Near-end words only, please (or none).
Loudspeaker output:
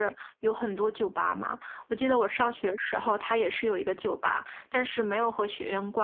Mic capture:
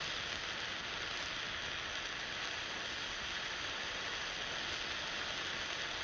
none